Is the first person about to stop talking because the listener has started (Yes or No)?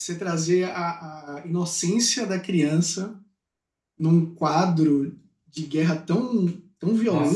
Yes